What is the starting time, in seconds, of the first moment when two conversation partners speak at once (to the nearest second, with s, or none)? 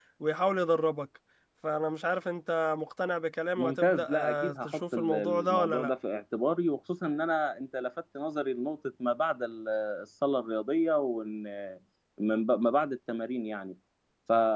4 s